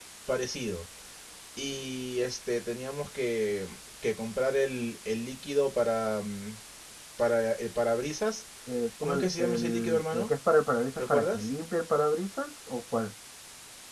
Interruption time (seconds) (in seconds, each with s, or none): 9.0 s